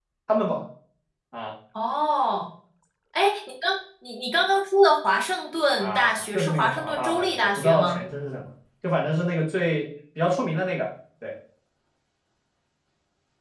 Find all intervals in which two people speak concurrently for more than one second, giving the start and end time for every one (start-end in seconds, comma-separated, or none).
5.8-8.0